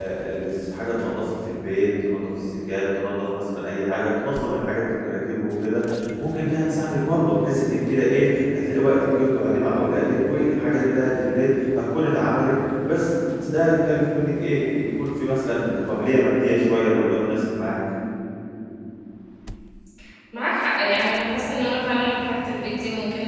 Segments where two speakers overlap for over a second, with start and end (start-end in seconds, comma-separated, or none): none